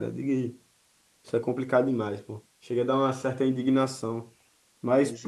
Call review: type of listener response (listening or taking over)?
listening